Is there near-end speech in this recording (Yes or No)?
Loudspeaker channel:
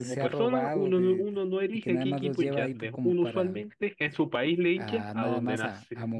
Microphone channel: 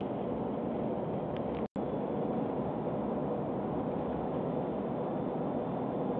No